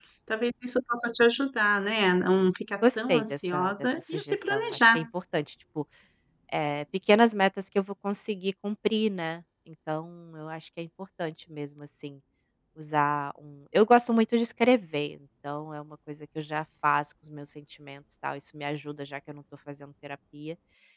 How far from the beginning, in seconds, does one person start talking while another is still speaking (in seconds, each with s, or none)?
2.8 s